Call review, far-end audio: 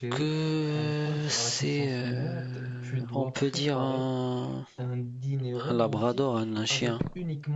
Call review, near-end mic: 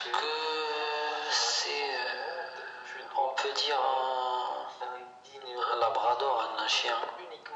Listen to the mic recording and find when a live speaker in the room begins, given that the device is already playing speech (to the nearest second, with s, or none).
none